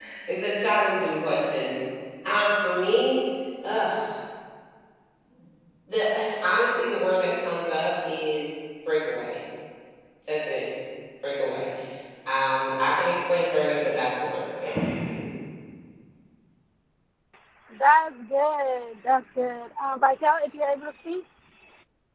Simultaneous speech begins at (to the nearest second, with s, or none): none